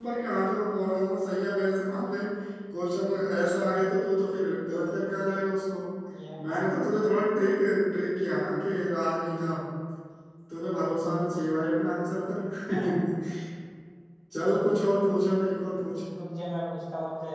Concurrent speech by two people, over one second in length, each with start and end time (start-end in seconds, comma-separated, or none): none